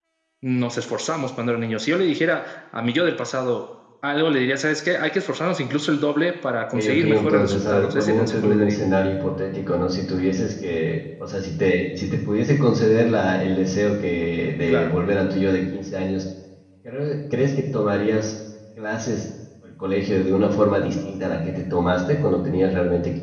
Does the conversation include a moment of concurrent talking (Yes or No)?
Yes